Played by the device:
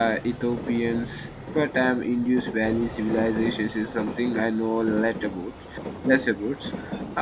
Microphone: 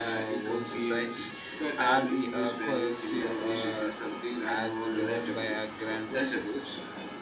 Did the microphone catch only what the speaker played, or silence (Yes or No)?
No